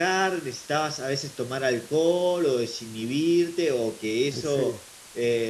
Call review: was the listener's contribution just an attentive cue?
Yes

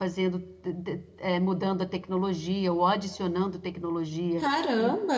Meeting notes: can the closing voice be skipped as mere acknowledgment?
Yes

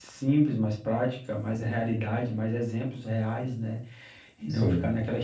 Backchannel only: Yes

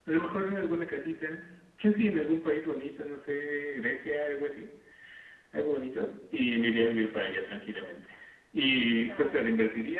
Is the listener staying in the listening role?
Yes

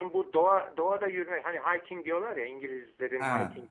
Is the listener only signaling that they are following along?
Yes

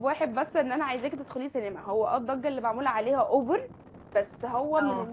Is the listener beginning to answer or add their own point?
No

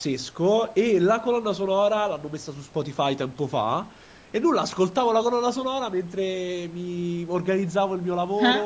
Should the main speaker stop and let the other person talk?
No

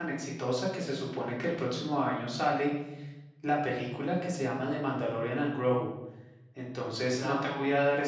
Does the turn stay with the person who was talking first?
Yes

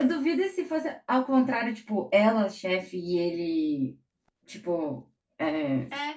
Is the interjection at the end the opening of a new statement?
Yes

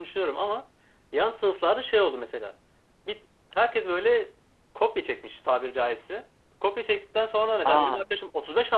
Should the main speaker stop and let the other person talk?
No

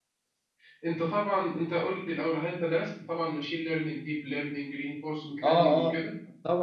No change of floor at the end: No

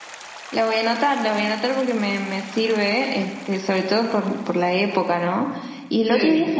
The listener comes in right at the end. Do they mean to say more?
No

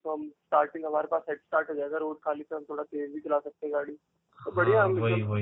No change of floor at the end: No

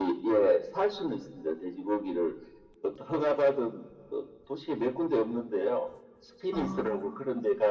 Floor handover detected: No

